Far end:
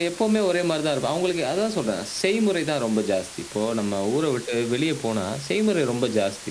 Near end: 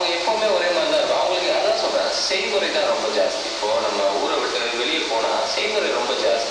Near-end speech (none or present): none